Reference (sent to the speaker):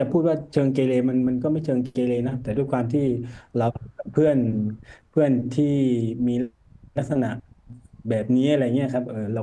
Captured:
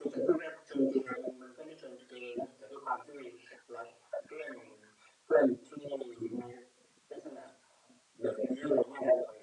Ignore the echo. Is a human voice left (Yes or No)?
No